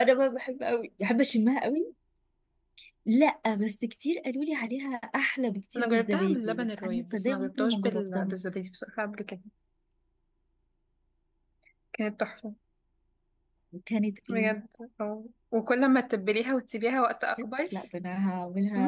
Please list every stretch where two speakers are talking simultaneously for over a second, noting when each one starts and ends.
5.8-8.3

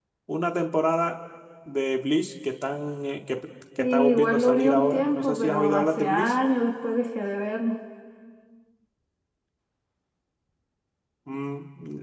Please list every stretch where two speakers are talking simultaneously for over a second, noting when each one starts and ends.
3.8-6.3

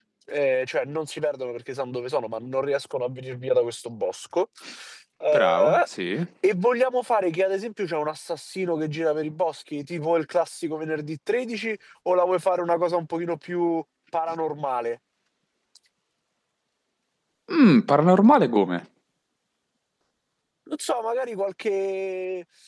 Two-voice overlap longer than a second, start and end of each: none

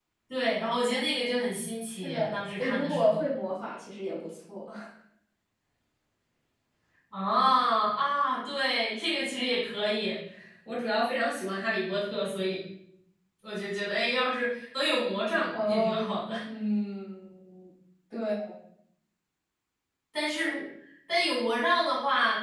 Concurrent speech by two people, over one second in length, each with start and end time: 2.0-3.2

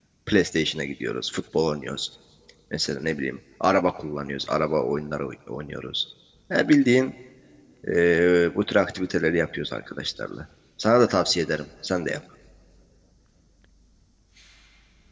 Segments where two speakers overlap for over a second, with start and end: none

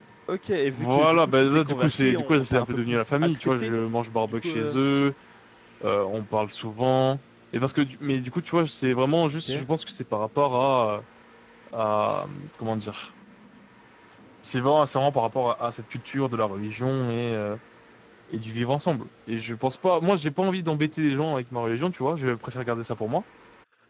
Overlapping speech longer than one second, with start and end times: 0.7-3.7

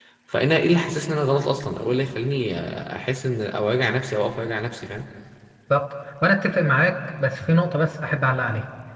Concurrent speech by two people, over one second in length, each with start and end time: none

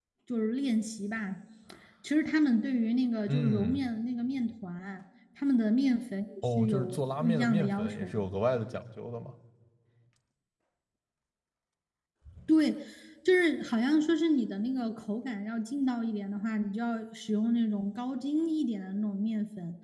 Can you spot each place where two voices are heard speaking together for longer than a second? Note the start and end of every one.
6.6-8.2

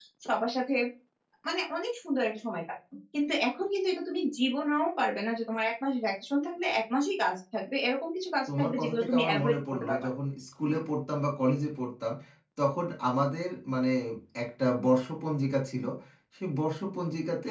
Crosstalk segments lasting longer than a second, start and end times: 8.5-10.1

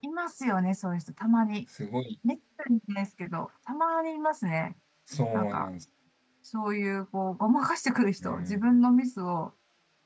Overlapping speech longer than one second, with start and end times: none

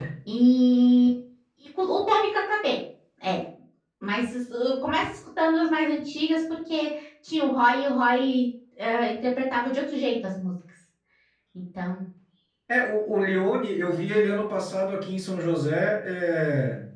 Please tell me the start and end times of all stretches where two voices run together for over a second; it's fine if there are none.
none

